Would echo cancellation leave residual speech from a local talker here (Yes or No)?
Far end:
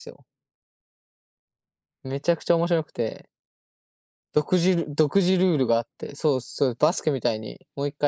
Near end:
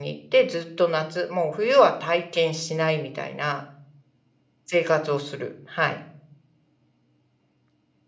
Yes